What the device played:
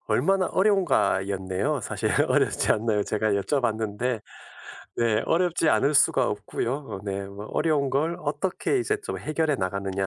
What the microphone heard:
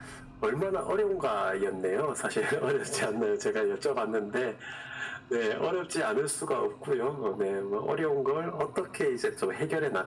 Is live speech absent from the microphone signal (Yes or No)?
Yes